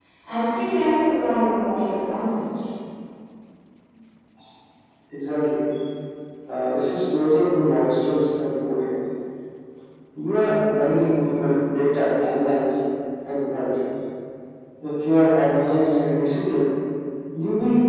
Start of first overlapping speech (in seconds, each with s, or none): none